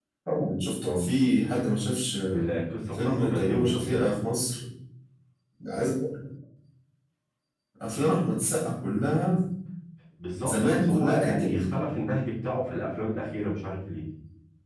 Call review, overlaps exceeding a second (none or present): present